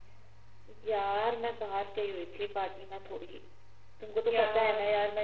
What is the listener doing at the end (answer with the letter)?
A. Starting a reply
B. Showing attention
B